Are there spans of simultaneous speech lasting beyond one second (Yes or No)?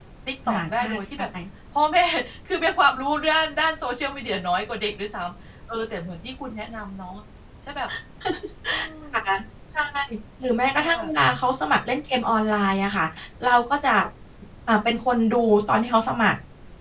No